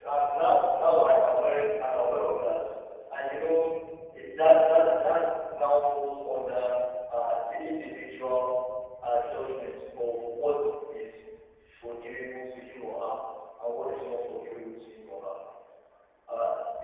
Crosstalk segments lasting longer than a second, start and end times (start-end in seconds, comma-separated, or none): none